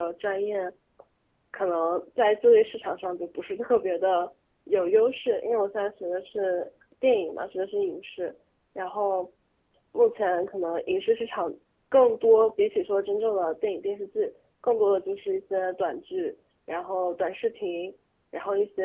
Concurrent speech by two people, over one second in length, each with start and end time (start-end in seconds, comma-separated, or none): none